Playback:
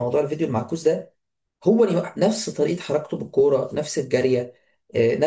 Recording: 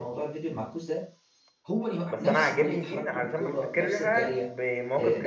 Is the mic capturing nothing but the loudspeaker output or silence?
No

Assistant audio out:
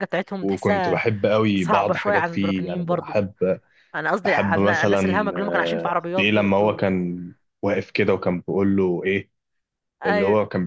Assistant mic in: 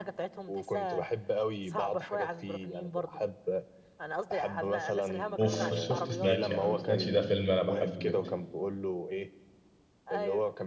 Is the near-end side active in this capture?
Yes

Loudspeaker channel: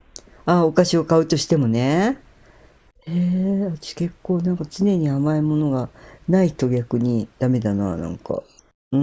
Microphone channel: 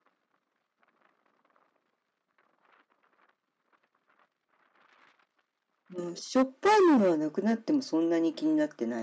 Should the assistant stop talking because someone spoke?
Yes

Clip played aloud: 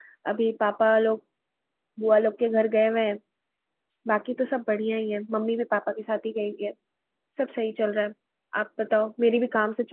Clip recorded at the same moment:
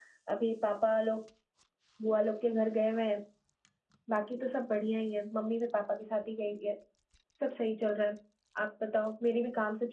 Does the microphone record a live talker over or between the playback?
No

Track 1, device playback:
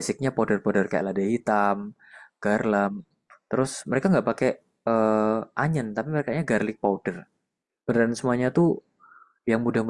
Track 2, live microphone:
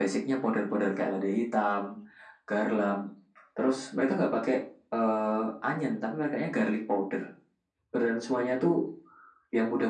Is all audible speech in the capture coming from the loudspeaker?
Yes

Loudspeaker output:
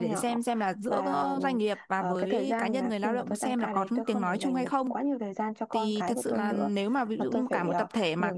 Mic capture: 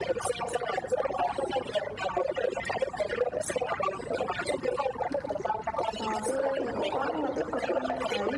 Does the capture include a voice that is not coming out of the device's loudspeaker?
Yes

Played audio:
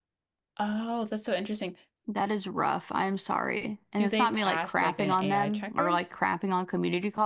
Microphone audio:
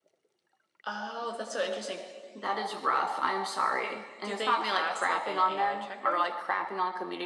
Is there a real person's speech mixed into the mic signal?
No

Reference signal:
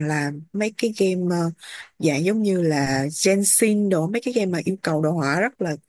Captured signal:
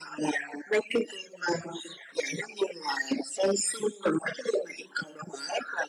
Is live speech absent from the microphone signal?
Yes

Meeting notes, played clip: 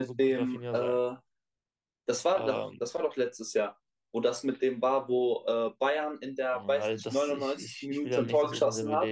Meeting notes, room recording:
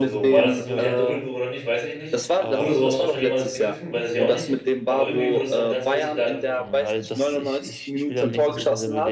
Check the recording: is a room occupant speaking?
Yes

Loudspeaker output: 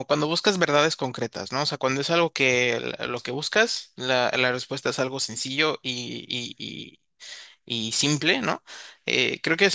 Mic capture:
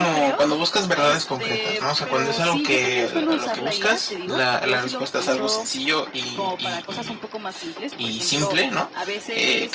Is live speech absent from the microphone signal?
No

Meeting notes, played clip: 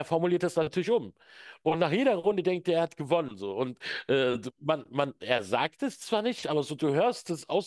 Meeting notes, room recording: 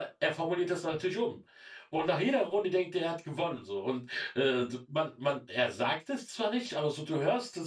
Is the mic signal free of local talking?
Yes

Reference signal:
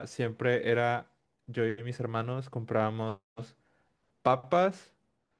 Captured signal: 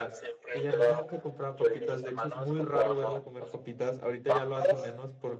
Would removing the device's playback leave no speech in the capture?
No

